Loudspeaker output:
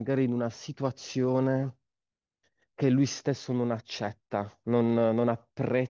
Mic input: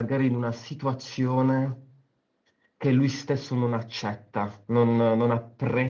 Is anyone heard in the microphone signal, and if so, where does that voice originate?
echo only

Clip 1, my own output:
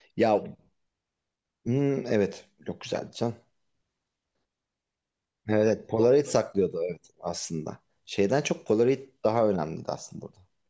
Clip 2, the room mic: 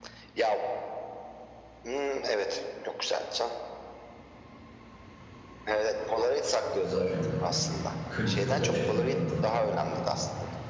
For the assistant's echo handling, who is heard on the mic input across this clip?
both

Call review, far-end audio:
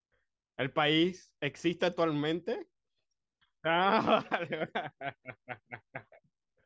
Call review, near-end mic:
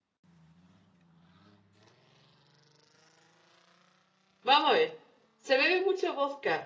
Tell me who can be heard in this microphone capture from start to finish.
user only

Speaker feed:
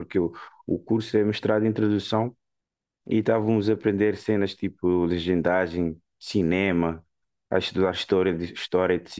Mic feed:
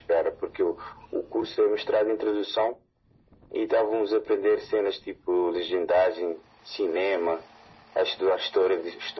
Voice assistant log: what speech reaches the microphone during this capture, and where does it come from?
echo only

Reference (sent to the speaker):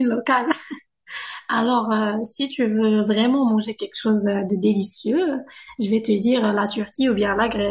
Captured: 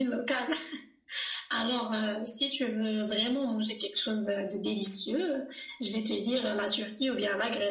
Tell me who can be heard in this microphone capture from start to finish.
echo only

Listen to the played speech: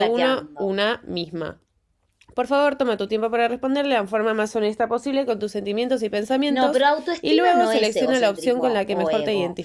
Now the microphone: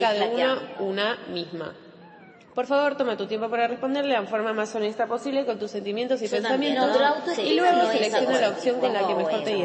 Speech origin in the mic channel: both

